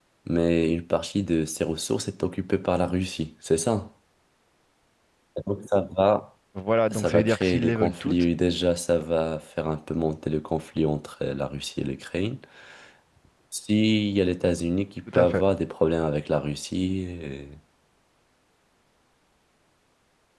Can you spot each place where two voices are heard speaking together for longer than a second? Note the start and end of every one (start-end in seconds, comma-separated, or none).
6.9-8.2